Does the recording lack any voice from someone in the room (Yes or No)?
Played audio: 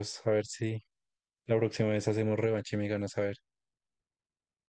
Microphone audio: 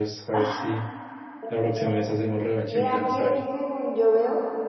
No